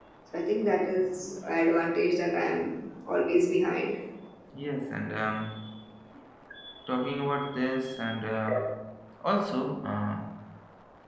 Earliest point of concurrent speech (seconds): none

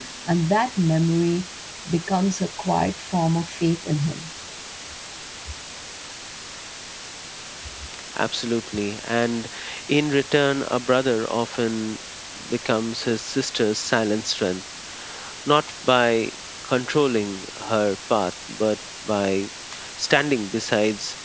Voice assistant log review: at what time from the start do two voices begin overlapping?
none

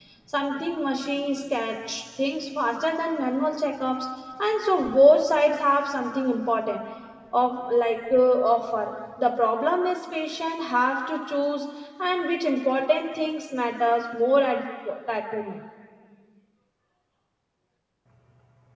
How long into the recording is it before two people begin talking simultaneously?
none

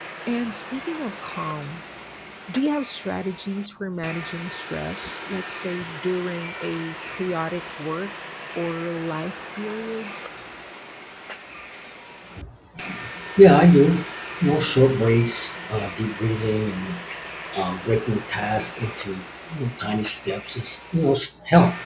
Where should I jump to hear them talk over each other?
none

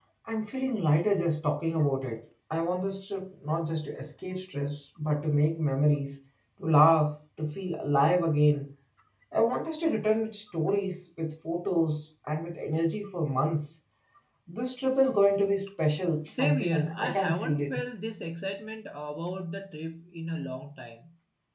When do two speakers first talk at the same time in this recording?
16.2 s

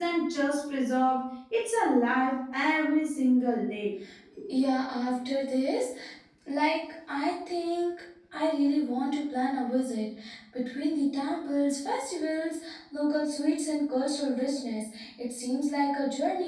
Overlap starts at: none

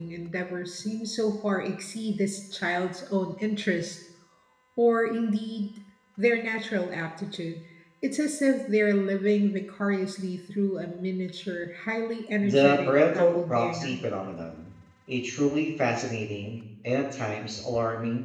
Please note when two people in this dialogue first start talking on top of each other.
12.4 s

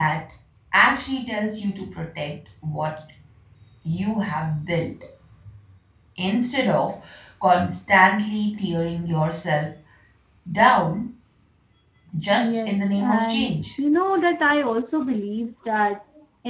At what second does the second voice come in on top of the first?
12.3 s

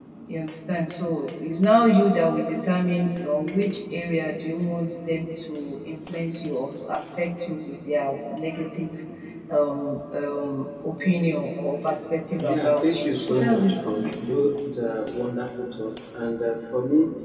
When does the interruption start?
12.4 s

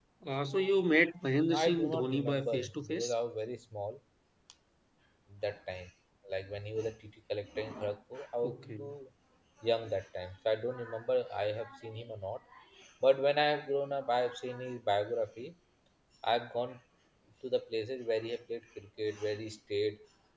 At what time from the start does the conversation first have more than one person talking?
1.5 s

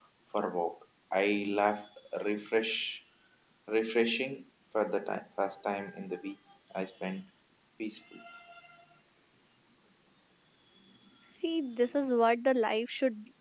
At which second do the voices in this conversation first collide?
none

